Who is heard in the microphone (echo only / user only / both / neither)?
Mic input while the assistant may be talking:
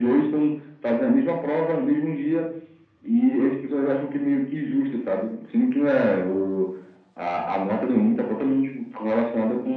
echo only